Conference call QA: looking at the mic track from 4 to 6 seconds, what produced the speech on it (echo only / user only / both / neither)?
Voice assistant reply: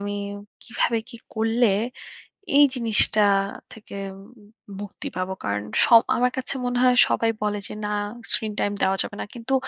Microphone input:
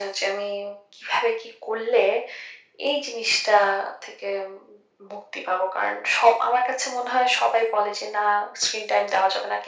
echo only